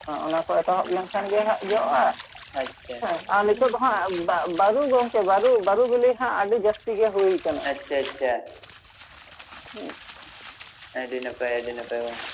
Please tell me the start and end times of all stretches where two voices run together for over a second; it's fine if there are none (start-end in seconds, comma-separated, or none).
none